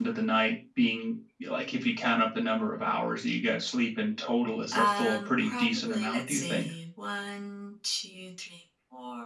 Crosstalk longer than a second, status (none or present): present